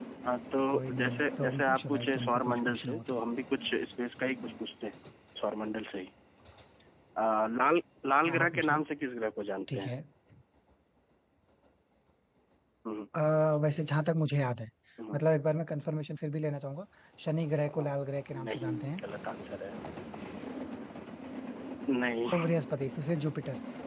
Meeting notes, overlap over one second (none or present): present